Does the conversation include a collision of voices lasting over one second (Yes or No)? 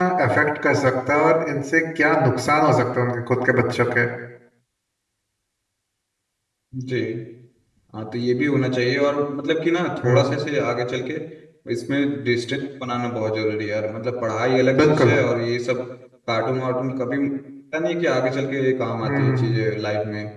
No